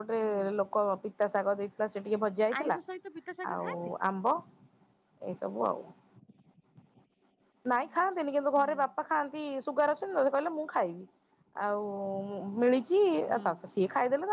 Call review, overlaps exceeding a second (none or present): none